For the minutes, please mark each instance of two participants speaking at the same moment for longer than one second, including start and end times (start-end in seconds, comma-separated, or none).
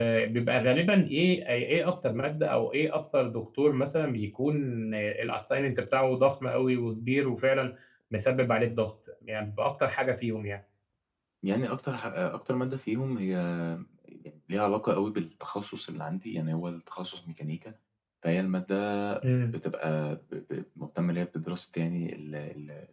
none